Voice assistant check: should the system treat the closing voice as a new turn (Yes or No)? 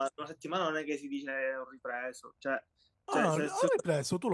Yes